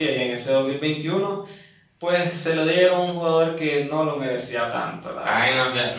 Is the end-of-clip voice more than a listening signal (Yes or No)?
Yes